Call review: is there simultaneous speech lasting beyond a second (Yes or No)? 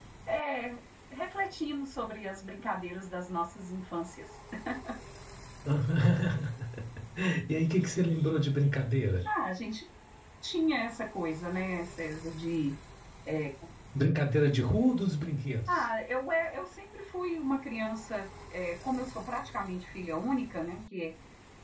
No